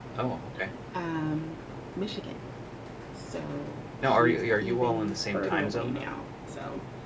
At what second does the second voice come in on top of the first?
4 s

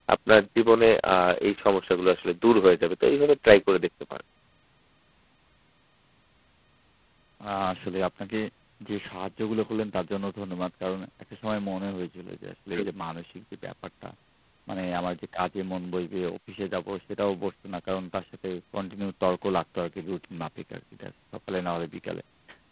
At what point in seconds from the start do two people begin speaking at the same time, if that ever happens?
none

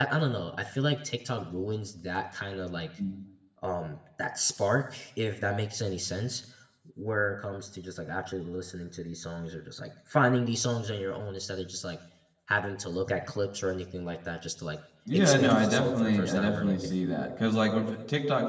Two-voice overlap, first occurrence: 15 s

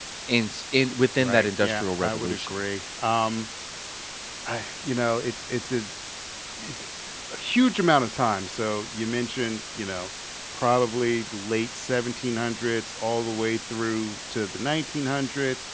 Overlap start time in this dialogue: 1 s

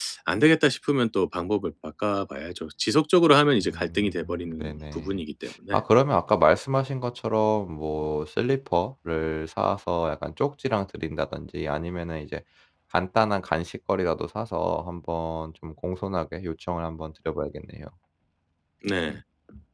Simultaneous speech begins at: 4 s

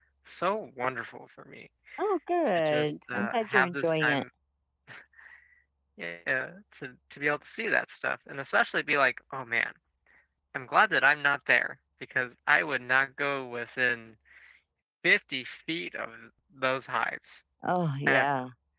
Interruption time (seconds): 3 s

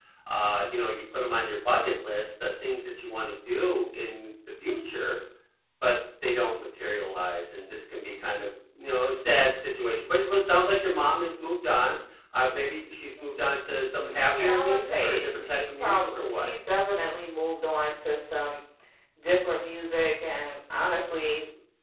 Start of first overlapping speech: 14 s

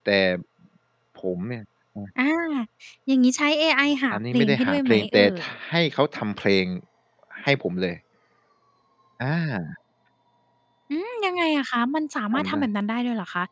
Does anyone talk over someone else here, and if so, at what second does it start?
4 s

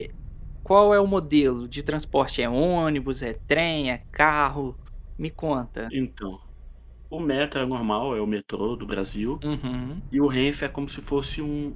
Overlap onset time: none

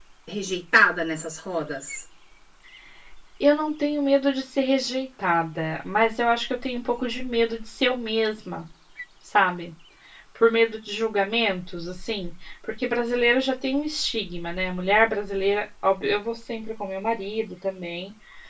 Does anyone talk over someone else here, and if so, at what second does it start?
none

